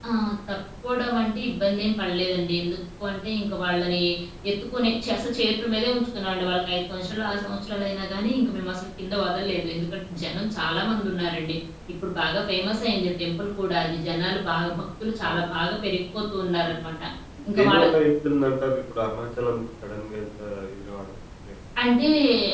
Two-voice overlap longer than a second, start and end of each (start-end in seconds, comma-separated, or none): none